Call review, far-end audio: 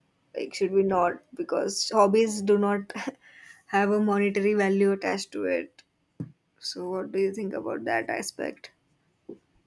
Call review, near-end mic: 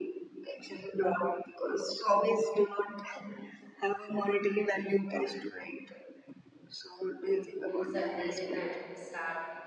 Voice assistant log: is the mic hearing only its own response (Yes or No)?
No